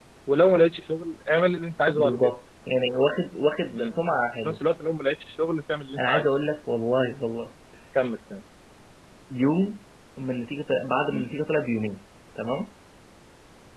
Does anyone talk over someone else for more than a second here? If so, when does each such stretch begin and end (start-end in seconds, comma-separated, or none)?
none